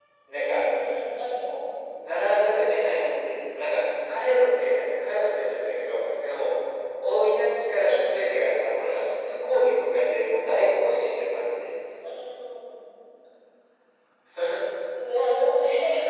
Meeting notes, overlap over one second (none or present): none